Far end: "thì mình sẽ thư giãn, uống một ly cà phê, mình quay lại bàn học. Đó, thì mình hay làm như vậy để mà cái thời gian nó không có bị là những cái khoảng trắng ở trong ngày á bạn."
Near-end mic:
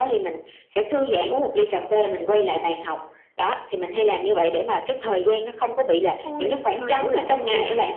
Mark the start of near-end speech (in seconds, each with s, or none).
6.2 s